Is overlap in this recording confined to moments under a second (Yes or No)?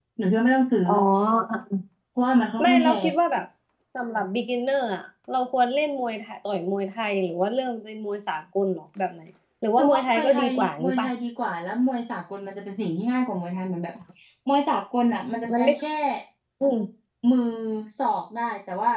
No